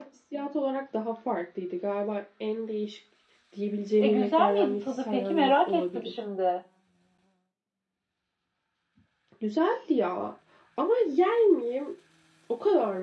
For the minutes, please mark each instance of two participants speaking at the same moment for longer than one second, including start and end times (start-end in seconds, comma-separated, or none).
4.0-6.1